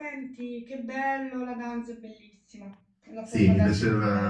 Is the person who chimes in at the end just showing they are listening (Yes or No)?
No